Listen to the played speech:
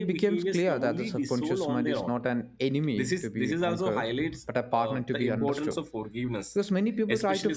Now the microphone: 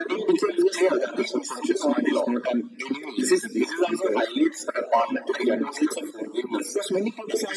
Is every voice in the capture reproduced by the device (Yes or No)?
Yes